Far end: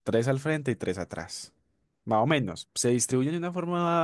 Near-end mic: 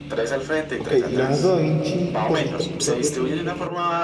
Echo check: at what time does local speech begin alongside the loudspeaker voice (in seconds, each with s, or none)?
0.8 s